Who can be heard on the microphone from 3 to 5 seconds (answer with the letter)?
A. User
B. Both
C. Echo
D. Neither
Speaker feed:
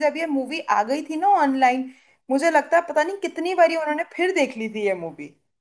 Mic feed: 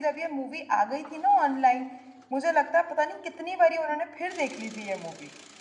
C